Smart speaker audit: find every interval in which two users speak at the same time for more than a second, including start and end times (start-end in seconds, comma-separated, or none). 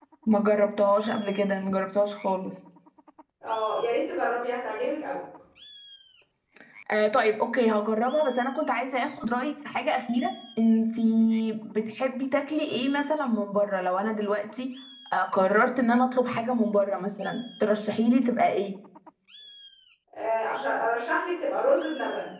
none